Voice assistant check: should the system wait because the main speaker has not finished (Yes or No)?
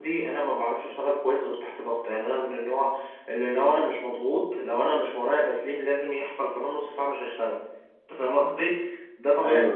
Yes